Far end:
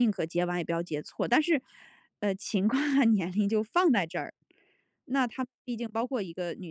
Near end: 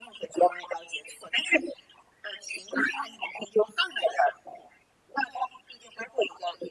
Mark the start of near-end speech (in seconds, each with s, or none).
none